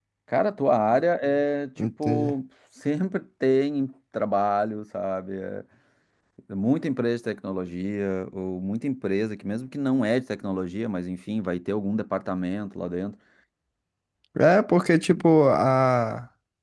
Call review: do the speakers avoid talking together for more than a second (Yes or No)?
Yes